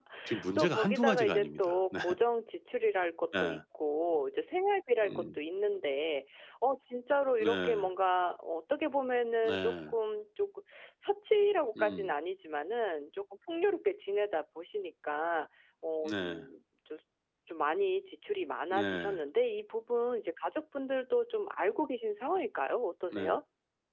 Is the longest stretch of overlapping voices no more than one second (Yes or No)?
No